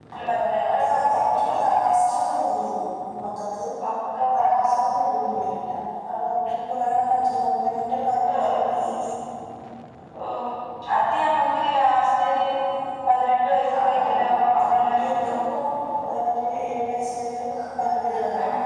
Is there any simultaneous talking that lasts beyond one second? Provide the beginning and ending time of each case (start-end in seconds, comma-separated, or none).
13.8-15.4